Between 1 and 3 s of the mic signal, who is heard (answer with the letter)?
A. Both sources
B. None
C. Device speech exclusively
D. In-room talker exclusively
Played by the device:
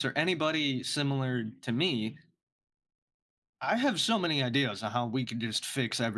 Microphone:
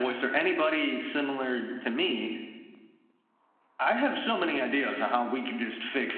C